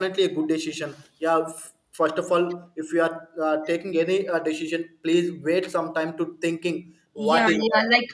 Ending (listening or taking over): taking over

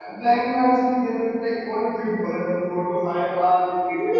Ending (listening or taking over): taking over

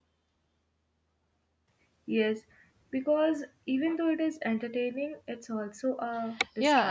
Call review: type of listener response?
taking over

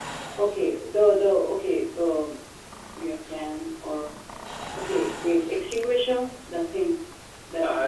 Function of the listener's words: taking over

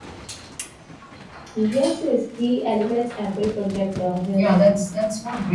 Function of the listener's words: taking over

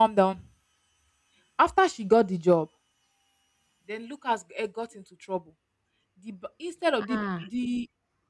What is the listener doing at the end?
listening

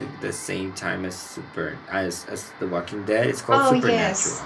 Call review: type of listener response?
taking over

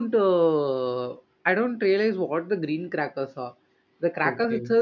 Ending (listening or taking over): listening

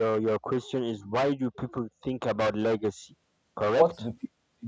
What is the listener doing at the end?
taking over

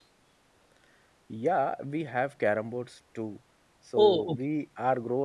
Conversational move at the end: listening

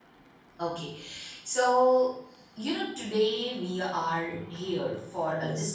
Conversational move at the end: listening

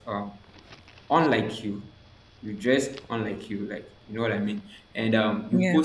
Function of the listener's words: listening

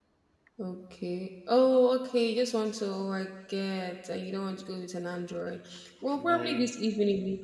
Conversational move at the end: listening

